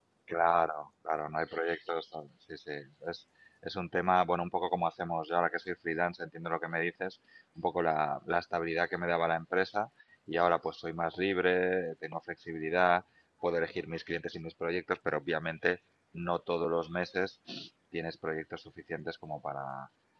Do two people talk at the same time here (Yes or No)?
No